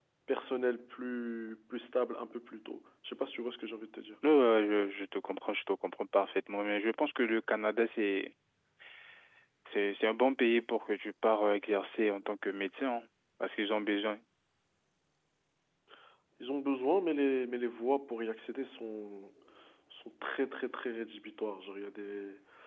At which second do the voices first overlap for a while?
none

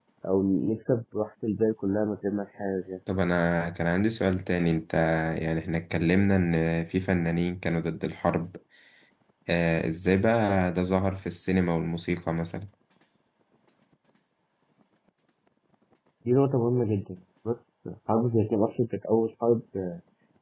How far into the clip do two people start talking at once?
none

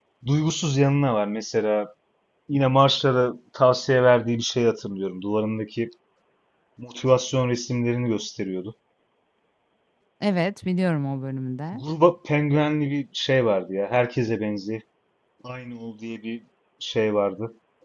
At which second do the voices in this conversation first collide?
none

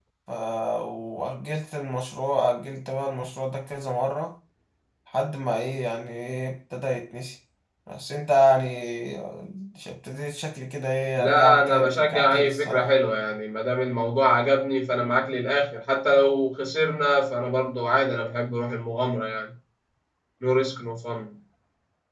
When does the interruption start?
11 s

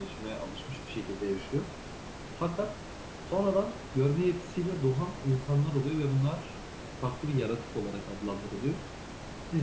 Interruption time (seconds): none

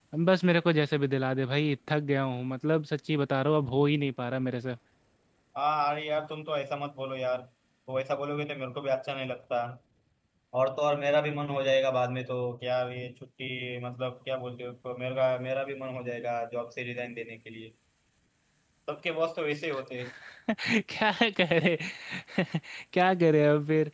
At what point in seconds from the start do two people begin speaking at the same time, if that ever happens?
none

